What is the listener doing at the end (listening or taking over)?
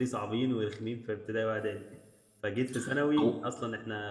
listening